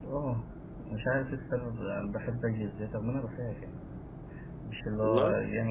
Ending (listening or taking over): listening